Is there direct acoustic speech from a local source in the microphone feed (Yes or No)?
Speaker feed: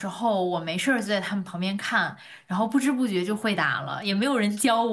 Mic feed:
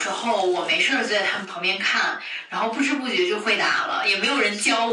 No